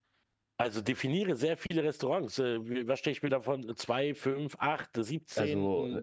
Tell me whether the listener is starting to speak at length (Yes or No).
Yes